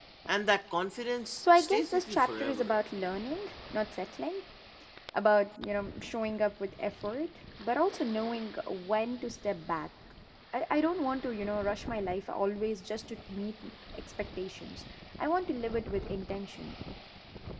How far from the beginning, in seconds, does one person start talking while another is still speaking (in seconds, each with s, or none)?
1.4 s